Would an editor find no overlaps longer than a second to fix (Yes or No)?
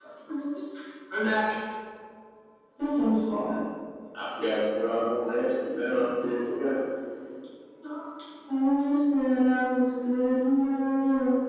Yes